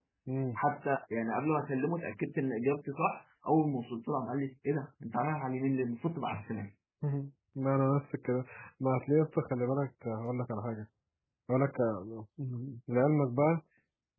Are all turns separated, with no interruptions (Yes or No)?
Yes